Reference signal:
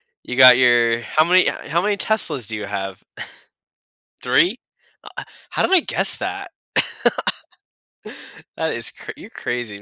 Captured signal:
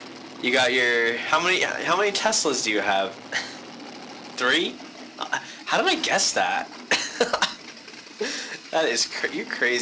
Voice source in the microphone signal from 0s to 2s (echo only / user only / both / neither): echo only